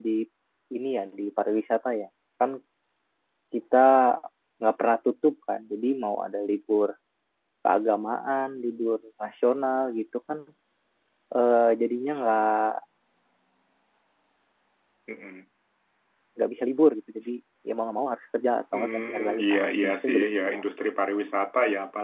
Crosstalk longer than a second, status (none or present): present